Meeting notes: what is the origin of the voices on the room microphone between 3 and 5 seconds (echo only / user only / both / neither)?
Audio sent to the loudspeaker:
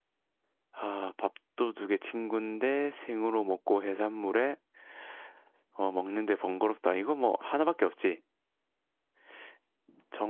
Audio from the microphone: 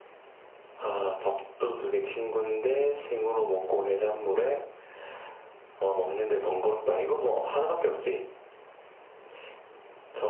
echo only